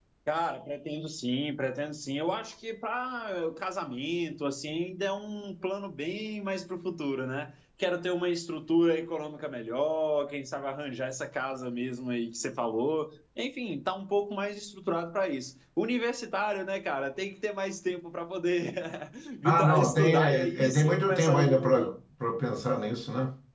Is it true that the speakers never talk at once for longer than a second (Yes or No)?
No